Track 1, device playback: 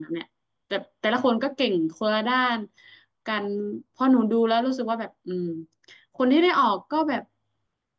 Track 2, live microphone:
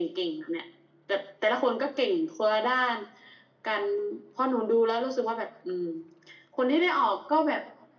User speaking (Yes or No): No